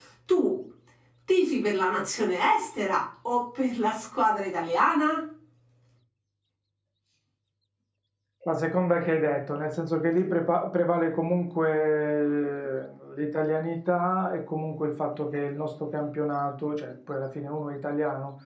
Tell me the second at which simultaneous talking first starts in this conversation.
none

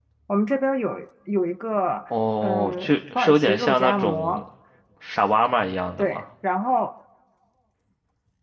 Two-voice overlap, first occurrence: 2.4 s

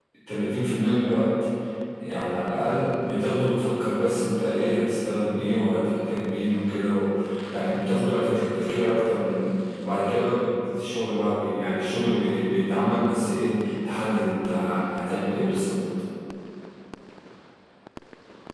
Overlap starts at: none

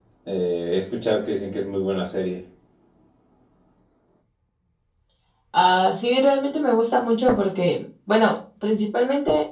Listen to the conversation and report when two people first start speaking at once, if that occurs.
none

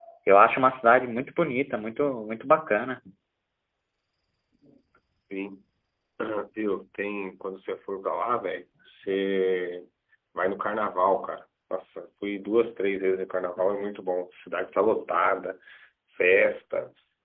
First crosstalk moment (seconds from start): none

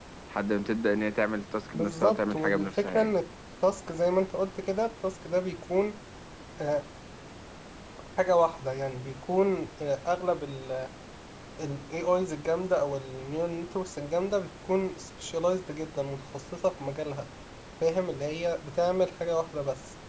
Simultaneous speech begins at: 1.7 s

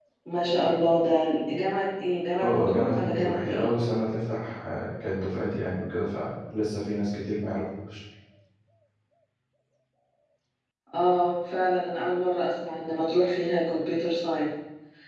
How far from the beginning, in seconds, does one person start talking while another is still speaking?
2.4 s

